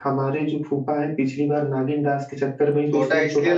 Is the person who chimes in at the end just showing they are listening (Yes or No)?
No